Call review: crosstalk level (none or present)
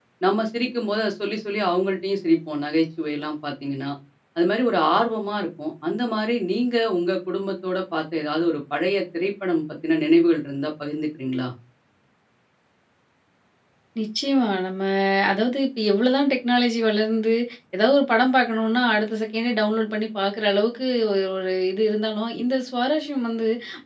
none